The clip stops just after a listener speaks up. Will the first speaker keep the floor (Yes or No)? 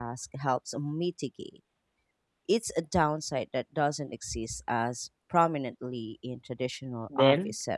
No